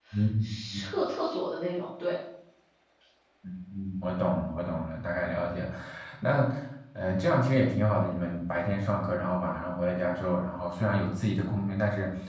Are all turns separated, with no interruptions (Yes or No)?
Yes